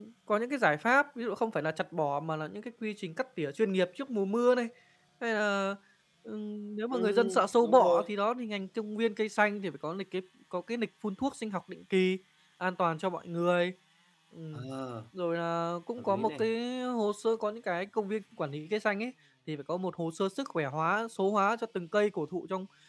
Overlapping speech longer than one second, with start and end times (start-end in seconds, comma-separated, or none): 6.9-8.1